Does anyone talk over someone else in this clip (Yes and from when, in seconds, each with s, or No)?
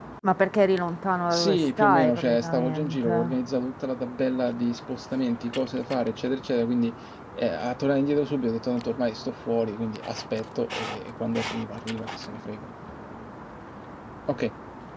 Yes, from 1.3 s